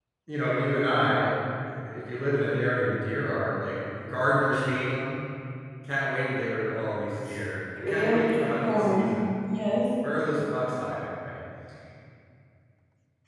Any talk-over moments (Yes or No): Yes